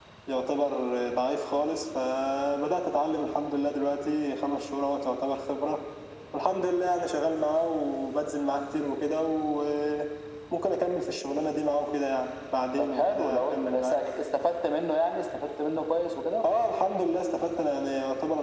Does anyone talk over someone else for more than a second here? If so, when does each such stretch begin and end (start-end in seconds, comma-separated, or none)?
12.8-14.0